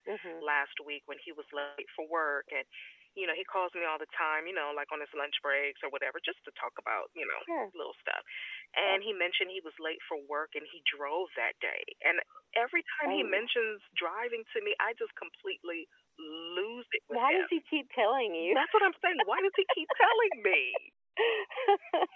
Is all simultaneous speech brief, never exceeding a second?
Yes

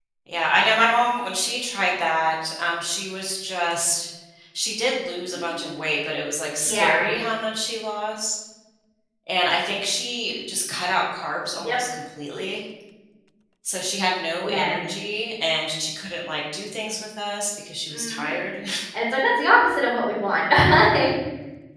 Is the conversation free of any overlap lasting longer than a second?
Yes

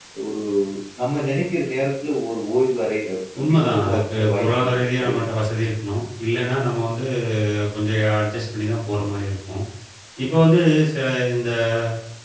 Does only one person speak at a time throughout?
No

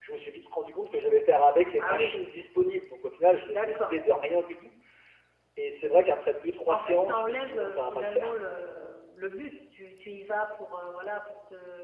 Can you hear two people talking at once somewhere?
Yes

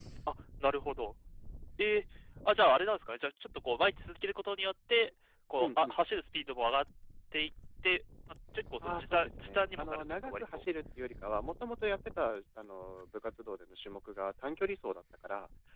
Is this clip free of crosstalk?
No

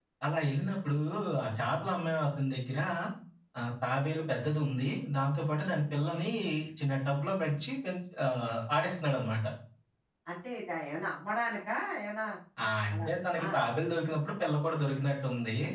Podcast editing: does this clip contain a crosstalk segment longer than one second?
No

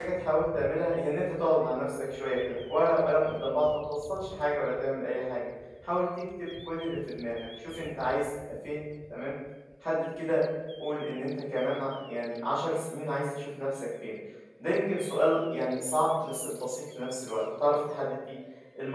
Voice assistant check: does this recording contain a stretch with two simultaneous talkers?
No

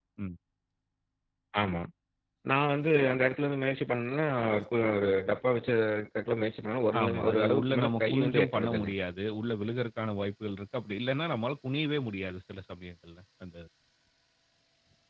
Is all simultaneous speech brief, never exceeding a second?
No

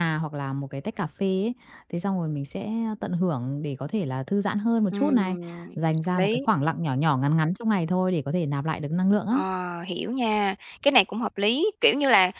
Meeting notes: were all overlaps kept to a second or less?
Yes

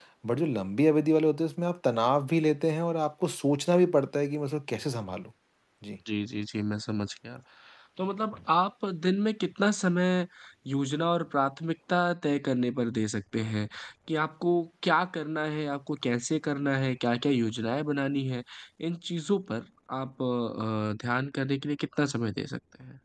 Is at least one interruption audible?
No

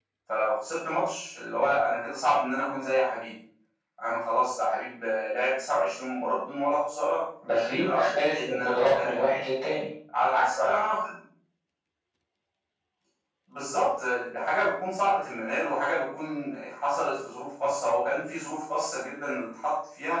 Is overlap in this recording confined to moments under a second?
No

